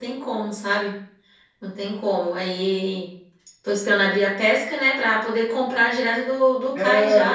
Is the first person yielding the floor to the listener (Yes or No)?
Yes